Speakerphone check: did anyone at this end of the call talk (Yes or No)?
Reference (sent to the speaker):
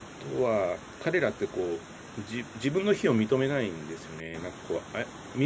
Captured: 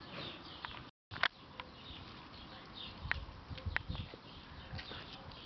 No